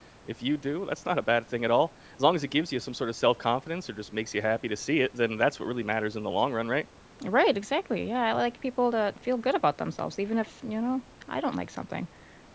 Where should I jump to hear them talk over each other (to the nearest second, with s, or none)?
none